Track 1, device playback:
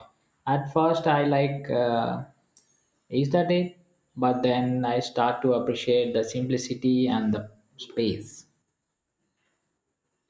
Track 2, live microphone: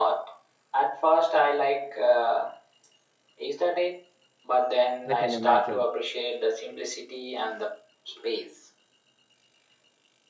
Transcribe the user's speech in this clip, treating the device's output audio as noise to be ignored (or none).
I can imagine.